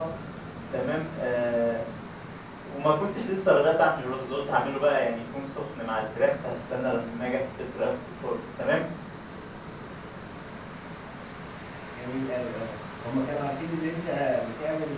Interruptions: none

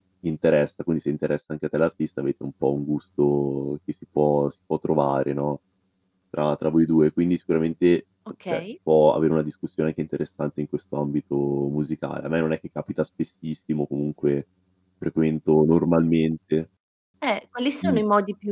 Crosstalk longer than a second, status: none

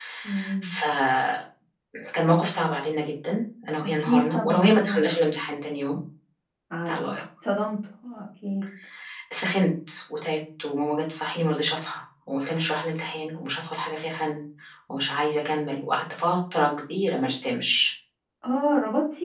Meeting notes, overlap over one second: present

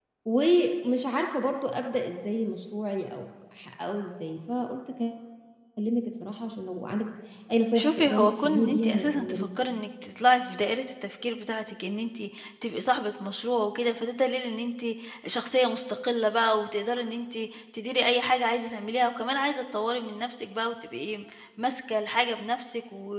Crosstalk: present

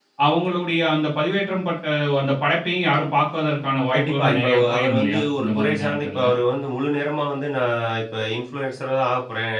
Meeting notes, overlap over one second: present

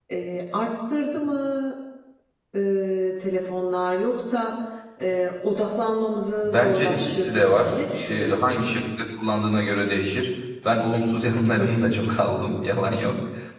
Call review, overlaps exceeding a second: present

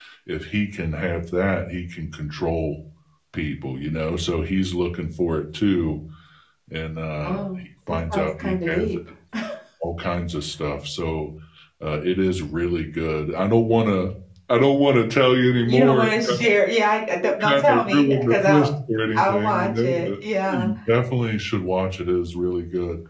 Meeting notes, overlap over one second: present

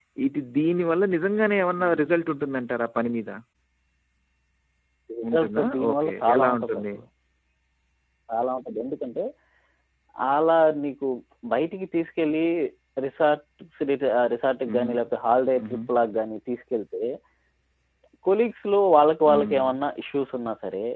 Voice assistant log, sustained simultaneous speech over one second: present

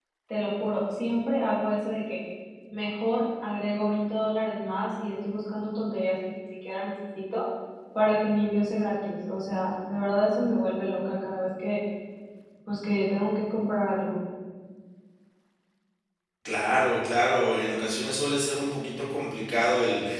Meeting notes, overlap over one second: none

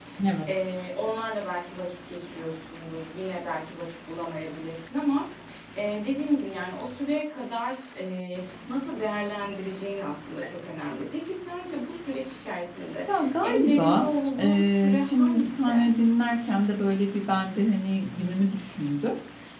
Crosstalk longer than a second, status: present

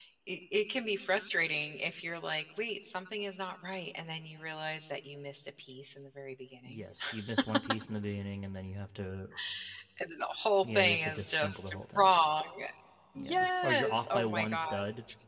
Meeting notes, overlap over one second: present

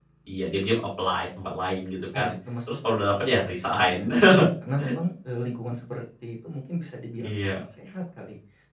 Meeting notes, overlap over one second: present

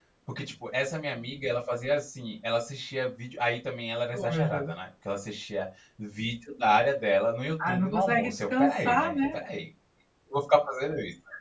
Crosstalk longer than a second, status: present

